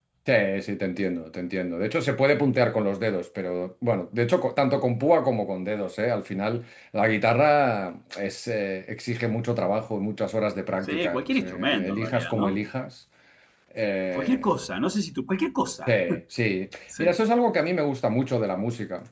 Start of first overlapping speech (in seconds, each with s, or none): 10.8 s